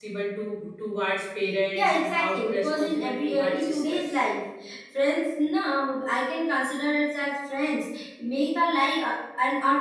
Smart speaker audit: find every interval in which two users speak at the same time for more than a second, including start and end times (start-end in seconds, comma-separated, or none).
1.8-4.2